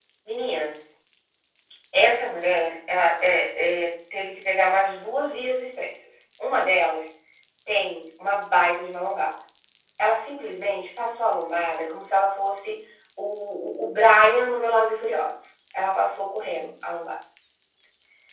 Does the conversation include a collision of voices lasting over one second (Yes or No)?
No